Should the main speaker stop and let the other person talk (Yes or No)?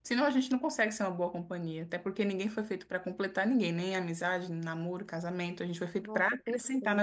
Yes